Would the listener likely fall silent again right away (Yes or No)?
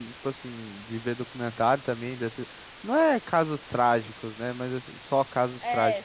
Yes